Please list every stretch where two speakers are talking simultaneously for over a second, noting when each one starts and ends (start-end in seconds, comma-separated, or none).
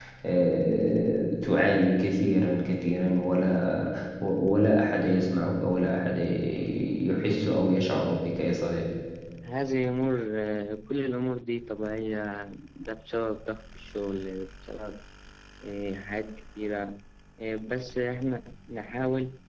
none